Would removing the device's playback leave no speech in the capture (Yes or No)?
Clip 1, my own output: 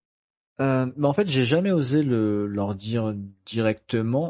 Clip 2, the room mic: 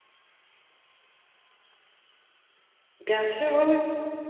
No